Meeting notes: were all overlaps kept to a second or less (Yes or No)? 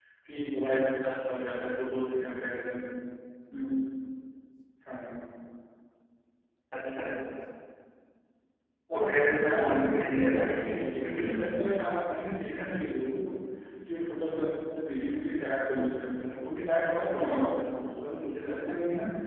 No